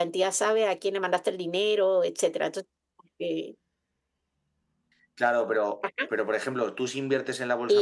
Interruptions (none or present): none